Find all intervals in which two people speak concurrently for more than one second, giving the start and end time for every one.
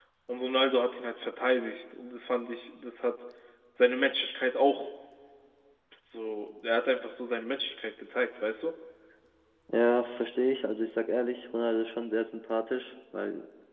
none

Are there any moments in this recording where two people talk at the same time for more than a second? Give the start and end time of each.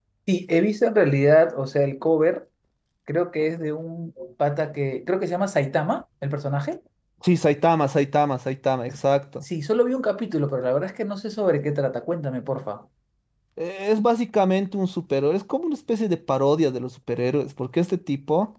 none

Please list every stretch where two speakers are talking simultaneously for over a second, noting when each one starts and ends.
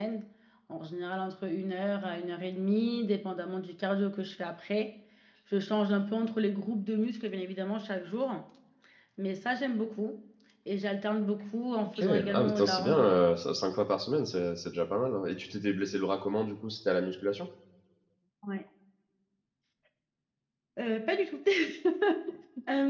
12.0-13.2

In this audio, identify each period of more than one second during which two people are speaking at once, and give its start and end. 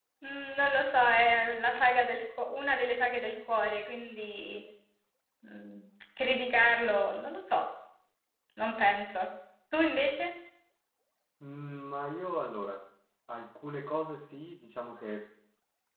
none

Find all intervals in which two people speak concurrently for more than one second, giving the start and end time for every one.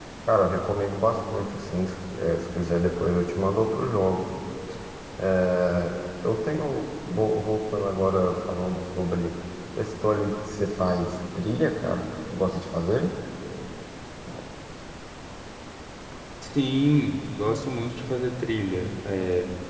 none

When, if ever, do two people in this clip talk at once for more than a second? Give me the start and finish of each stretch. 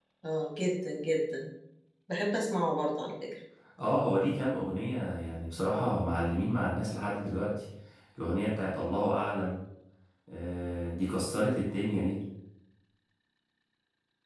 none

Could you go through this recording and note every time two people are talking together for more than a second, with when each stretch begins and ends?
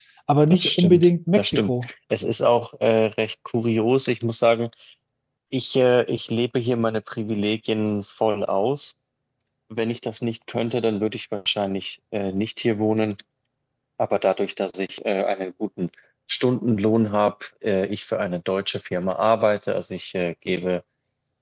0.5-1.9

